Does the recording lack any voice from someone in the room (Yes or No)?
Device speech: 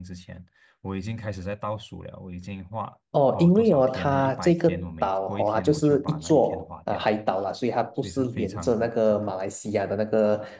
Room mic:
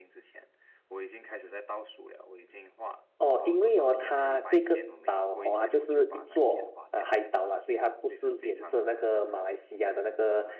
Yes